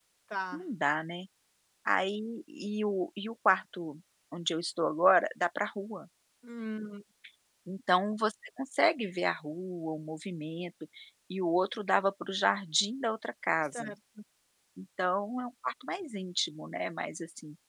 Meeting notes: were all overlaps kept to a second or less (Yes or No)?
Yes